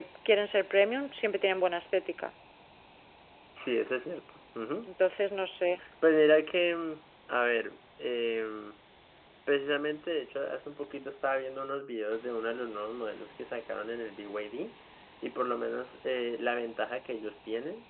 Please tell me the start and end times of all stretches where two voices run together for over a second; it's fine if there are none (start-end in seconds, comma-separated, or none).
none